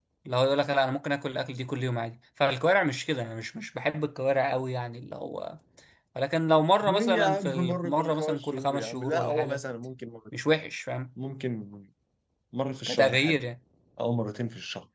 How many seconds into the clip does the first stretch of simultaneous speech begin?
7 s

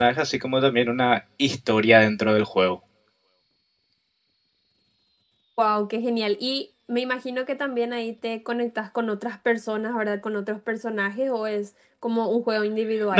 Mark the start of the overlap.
none

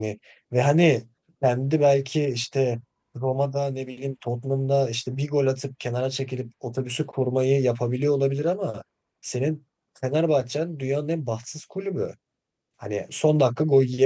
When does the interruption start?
none

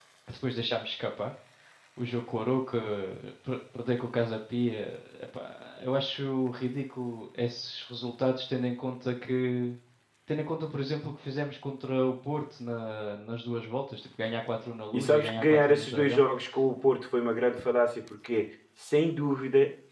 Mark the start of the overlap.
15 s

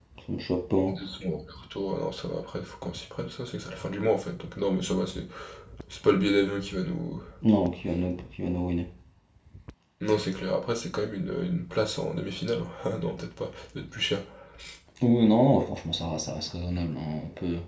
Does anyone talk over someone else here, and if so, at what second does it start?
none

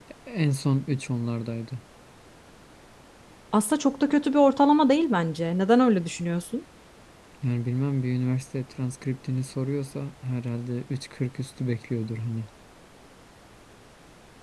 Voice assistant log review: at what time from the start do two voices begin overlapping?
none

